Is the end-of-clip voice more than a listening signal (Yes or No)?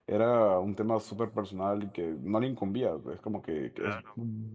No